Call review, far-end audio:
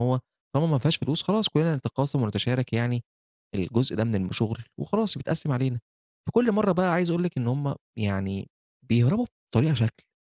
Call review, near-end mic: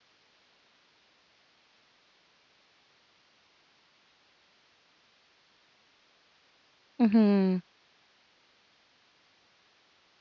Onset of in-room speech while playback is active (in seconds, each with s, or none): 7.0 s